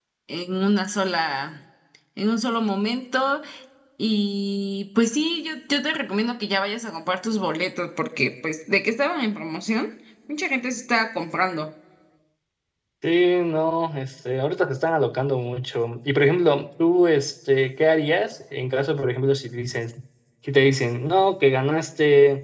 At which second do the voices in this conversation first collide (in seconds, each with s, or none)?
none